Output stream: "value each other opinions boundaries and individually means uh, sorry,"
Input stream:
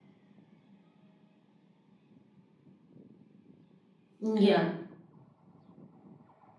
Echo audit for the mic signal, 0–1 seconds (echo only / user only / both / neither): neither